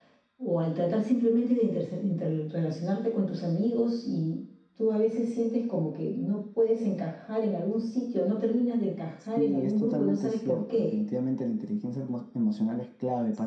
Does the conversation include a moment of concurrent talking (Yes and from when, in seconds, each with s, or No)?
Yes, from 9.2 s